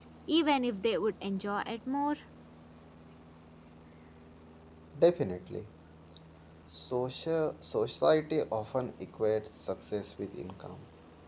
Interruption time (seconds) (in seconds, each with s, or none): none